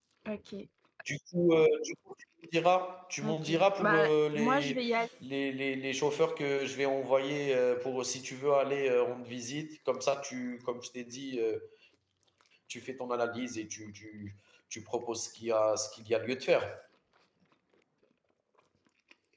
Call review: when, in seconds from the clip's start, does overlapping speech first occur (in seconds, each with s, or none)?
3.2 s